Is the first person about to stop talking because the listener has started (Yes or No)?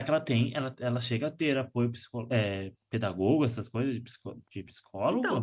Yes